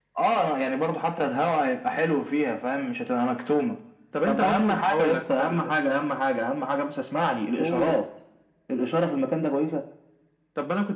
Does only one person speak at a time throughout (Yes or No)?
No